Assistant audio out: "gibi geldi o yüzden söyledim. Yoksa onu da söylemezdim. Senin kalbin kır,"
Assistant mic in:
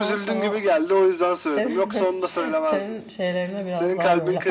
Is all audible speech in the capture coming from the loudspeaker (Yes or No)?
No